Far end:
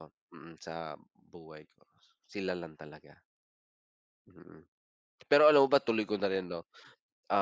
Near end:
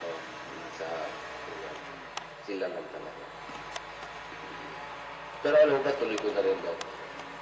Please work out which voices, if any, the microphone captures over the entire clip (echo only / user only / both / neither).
echo only